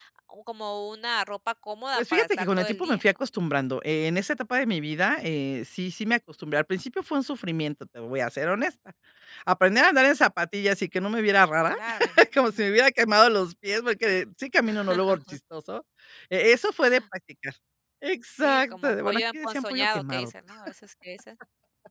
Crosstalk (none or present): present